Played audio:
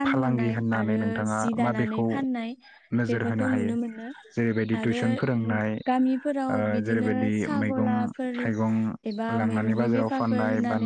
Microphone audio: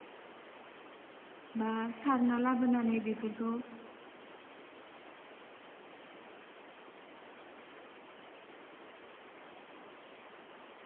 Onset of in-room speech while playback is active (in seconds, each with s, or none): 1.6 s